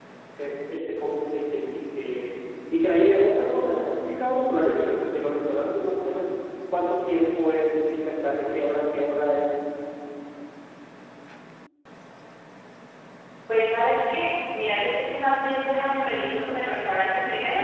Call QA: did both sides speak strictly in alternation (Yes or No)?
Yes